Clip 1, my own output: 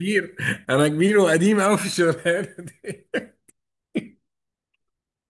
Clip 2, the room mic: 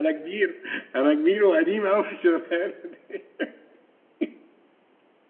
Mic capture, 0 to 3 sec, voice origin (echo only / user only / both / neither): echo only